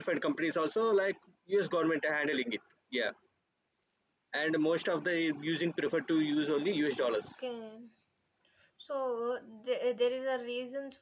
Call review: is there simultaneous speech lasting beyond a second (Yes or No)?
No